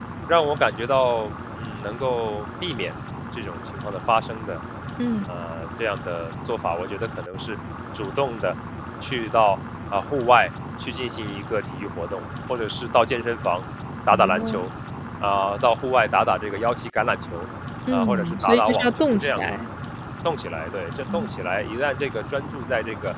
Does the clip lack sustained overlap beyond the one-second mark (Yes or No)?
No